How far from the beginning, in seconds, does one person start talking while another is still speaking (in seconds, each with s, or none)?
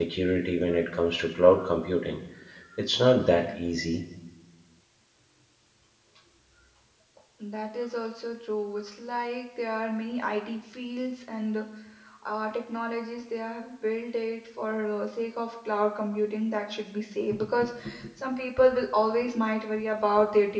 none